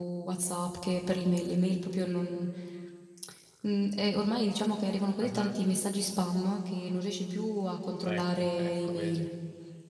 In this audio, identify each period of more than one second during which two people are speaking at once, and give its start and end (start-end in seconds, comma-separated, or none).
8.0-9.3